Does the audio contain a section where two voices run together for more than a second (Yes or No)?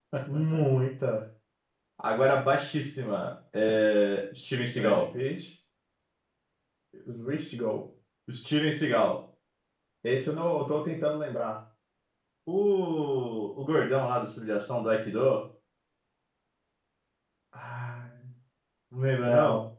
No